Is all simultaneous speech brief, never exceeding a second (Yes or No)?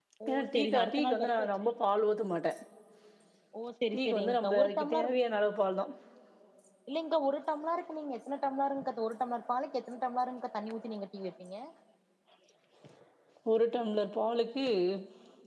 No